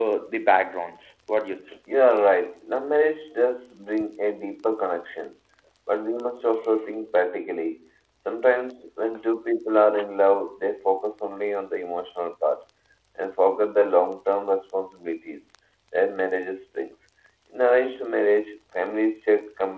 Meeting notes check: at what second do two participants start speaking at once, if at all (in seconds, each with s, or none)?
none